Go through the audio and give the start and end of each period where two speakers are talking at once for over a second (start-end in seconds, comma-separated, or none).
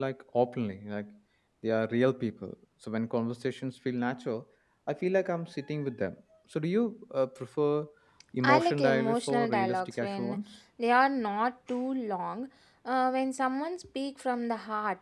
8.4-10.4